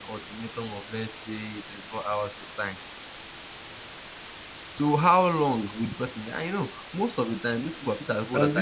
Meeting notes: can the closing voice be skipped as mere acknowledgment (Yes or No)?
No